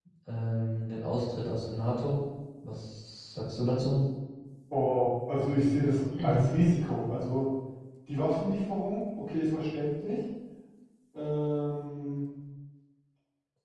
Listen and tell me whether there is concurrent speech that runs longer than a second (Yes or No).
No